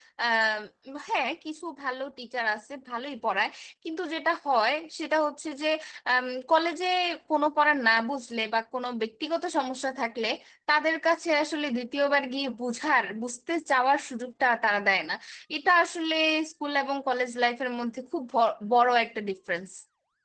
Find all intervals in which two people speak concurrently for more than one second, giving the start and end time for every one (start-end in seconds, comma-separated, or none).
none